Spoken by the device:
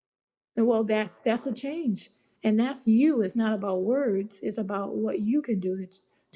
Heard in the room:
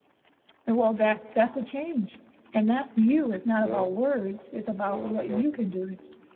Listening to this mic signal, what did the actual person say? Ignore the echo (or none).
No, no, no.